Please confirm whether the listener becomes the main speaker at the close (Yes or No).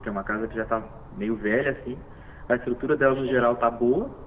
No